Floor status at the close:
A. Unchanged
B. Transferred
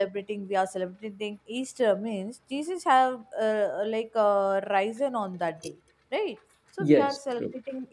A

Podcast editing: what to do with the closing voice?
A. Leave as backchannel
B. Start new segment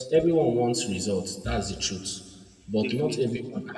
A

